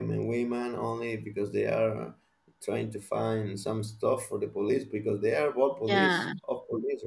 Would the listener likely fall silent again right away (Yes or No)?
Yes